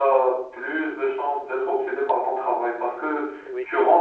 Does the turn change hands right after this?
No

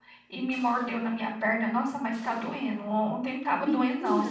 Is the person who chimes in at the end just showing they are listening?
Yes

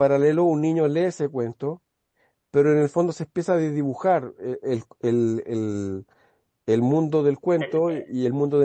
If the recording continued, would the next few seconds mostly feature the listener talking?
No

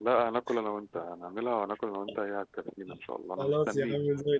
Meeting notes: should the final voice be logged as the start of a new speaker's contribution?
Yes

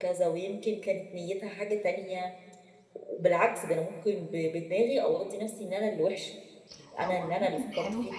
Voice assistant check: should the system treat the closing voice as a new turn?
Yes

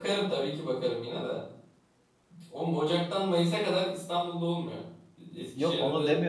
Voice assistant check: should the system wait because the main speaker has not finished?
No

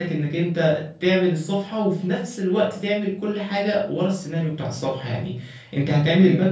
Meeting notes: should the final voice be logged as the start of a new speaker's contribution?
No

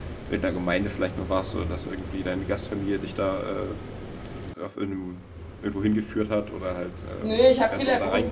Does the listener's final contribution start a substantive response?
Yes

